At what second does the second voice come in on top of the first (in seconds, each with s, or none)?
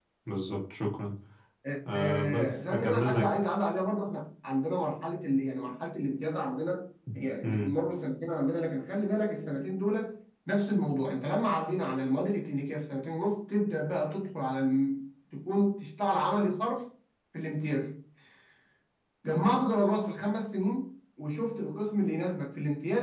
1.9 s